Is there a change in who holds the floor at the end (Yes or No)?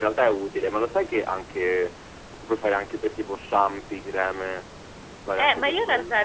Yes